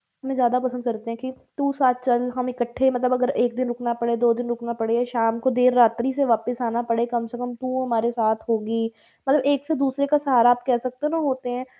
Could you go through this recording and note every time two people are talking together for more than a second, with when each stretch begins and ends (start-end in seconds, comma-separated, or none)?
none